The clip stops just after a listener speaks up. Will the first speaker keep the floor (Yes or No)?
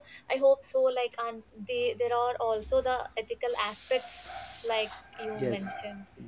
No